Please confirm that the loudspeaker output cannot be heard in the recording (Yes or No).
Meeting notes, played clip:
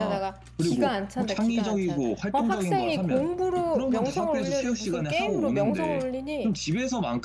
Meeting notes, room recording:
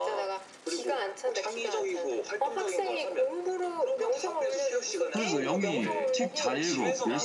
No